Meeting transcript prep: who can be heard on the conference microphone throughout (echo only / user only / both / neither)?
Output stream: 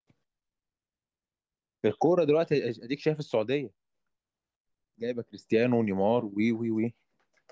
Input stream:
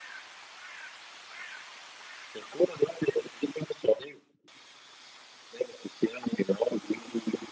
echo only